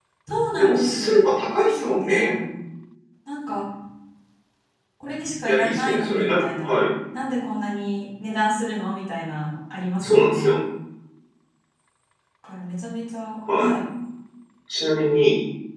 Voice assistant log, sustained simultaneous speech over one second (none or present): present